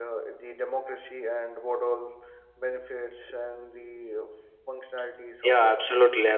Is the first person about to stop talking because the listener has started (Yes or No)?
Yes